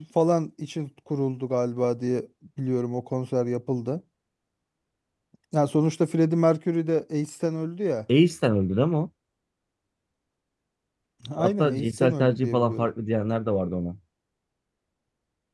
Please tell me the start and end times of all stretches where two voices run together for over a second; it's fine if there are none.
11.4-12.9

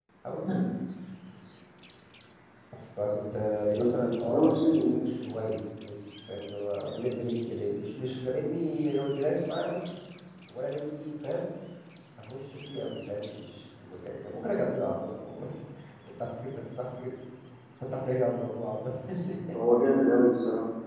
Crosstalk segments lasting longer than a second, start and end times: 3.8-5.0

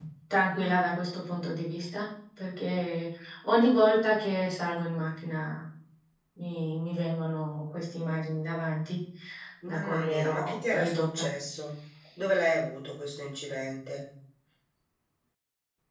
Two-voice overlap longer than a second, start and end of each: 9.7-11.3

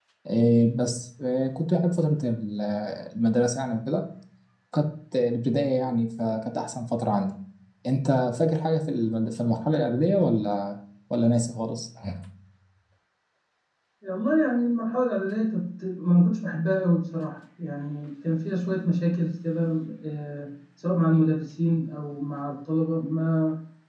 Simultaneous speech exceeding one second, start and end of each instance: none

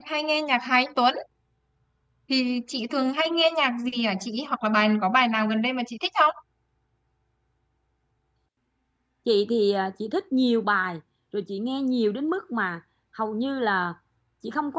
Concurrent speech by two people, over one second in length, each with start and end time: none

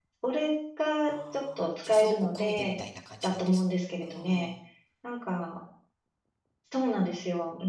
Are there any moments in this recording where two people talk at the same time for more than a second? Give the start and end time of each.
1.1-2.8

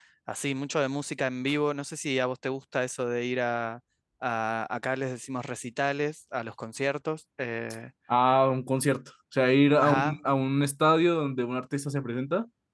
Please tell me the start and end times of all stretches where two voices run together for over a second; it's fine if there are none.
none

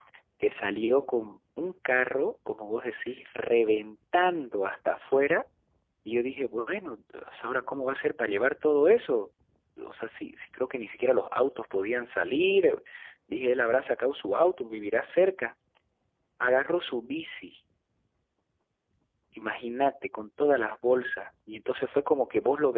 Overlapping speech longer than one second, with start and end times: none

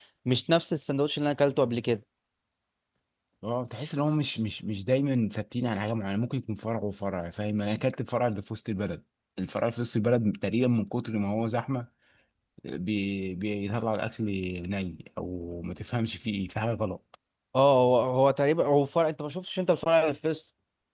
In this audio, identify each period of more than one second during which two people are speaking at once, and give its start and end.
none

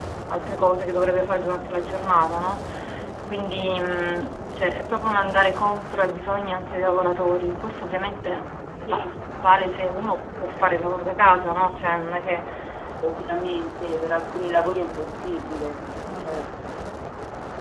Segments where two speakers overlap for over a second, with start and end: none

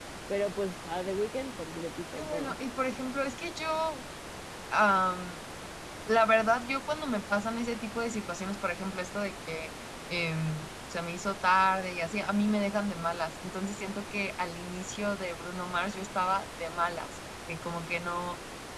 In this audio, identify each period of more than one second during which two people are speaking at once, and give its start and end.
none

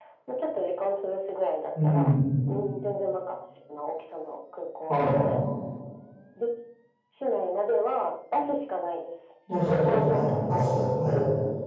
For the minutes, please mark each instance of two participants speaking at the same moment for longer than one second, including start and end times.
9.6-10.8

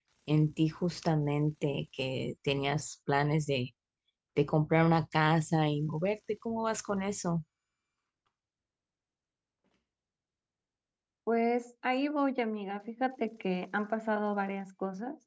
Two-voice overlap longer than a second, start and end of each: none

